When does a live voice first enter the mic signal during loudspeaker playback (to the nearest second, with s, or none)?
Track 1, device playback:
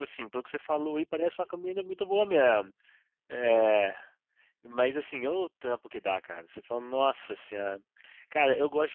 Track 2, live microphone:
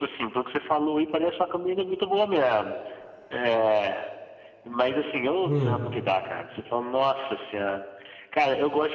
5 s